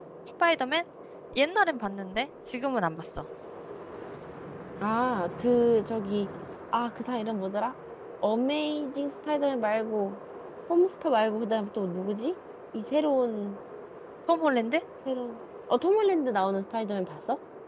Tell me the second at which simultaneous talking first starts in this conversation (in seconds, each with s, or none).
none